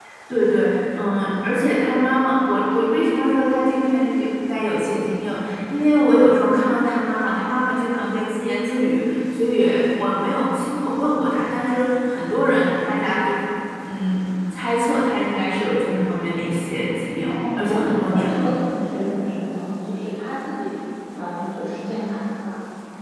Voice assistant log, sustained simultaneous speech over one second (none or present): present